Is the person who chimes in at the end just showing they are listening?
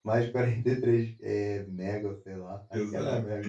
No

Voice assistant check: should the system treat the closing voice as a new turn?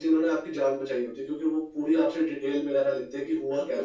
Yes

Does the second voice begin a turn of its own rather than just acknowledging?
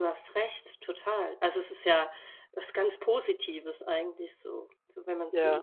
Yes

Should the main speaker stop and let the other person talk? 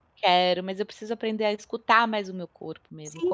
Yes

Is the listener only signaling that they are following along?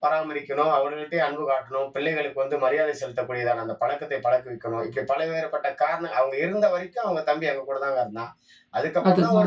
Yes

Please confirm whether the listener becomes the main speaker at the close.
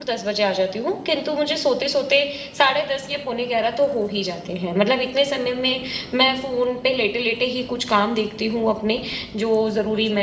No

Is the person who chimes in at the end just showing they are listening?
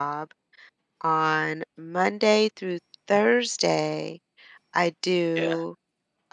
Yes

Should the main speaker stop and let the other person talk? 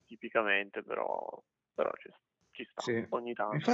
Yes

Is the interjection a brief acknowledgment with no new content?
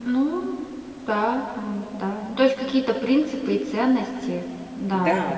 No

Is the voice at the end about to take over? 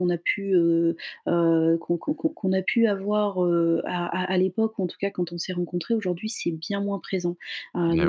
No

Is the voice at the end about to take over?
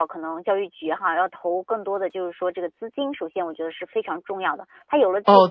Yes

